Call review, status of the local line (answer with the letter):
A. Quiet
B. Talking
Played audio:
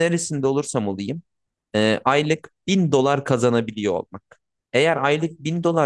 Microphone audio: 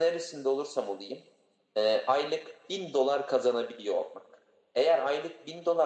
A